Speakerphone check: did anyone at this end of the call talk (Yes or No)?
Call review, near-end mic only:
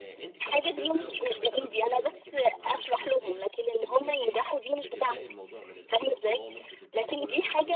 Yes